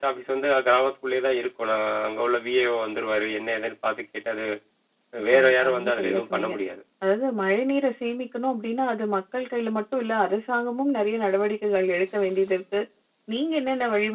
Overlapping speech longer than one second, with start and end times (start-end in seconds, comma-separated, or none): 5.3-6.5